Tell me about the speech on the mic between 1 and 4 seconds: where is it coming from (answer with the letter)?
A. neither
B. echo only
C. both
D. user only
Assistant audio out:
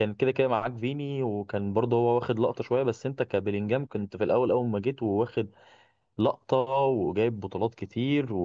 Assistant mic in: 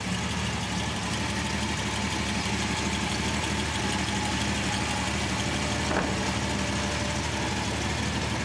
A